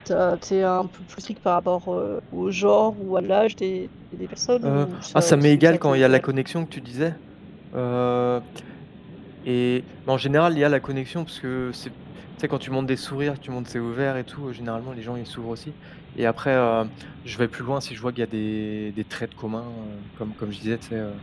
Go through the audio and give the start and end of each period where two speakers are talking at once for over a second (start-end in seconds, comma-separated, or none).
4.6-6.3